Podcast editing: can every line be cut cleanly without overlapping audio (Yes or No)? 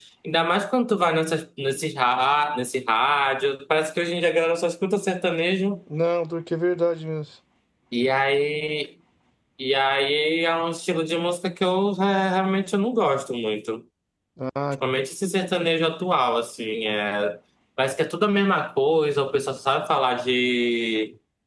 Yes